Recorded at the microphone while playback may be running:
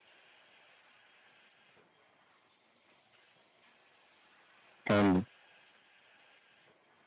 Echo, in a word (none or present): none